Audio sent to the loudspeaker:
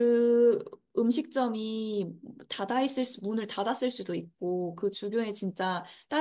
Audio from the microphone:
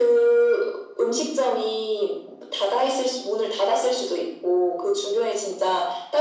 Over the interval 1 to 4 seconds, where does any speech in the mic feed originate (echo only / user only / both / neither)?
echo only